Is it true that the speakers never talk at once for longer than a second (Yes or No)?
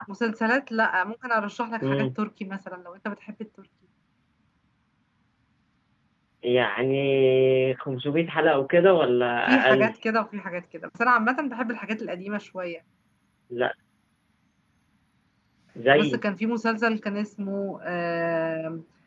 Yes